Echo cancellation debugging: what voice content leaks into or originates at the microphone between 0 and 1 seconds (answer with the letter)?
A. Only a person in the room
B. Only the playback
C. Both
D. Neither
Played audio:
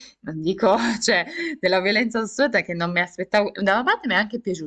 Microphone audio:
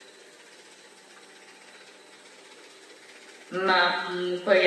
D